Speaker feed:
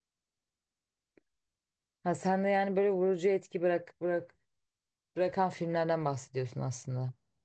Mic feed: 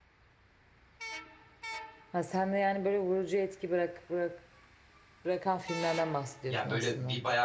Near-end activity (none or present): present